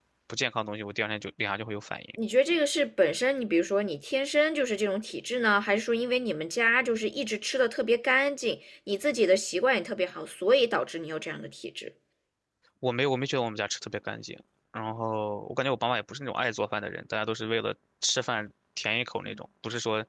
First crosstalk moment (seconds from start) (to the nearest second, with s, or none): none